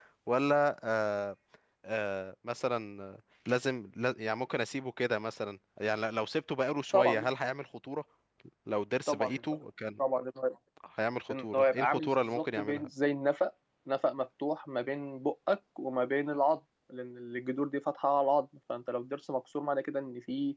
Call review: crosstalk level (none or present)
present